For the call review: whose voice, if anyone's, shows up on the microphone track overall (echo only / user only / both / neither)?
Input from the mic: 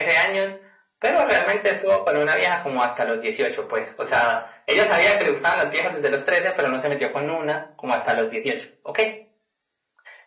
echo only